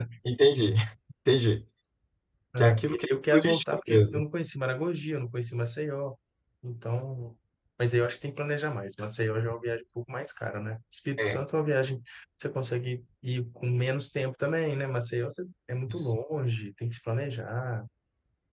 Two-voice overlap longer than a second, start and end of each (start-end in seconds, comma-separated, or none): 2.6-4.2